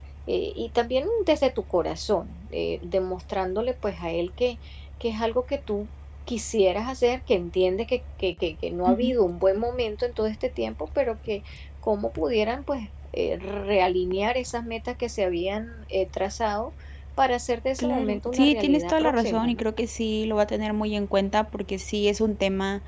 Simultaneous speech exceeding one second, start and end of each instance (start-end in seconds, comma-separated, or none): 17.8-19.6